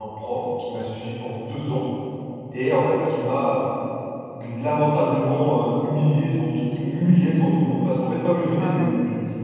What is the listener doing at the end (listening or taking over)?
listening